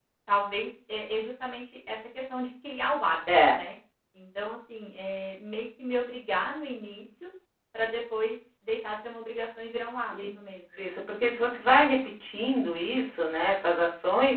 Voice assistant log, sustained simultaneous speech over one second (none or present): none